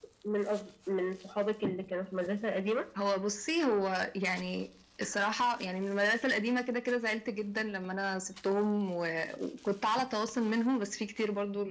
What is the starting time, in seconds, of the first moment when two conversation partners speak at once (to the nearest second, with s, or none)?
none